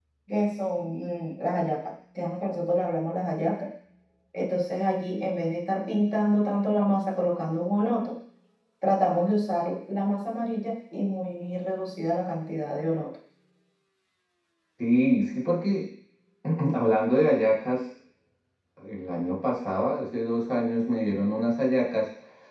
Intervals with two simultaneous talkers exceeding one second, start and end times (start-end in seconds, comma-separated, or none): none